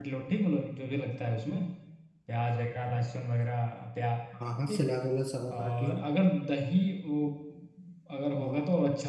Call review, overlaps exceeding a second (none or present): none